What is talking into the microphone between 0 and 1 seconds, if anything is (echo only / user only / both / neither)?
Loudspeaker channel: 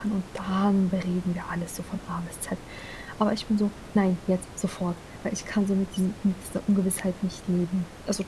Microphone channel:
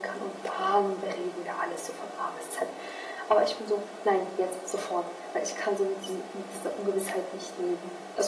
echo only